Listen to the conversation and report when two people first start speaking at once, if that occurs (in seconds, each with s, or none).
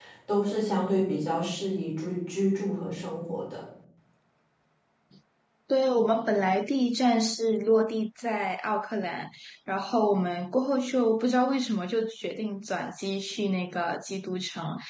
none